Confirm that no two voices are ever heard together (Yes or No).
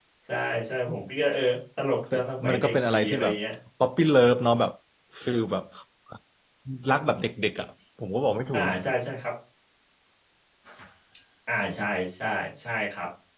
No